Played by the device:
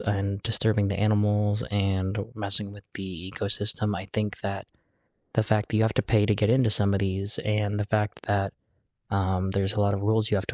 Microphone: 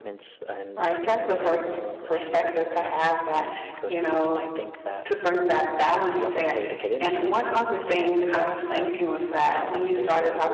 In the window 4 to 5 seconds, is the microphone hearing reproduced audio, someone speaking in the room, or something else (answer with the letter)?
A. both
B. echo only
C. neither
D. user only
A